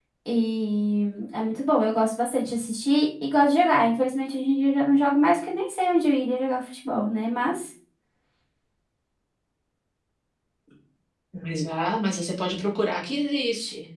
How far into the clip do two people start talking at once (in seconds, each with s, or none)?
none